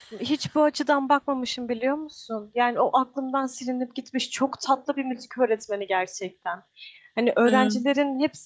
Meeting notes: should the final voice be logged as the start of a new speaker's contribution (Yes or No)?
No